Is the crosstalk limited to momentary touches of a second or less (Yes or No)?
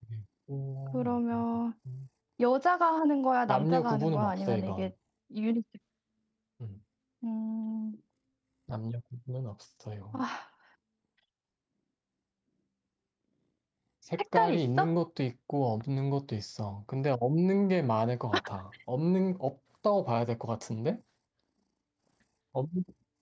No